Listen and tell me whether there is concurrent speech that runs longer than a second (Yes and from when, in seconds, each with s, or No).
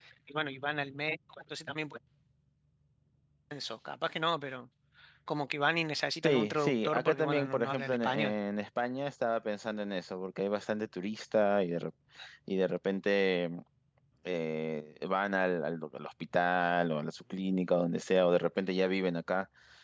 Yes, from 6.2 s